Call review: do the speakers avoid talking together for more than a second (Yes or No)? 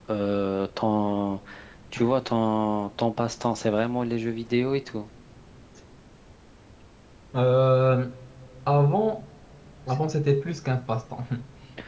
Yes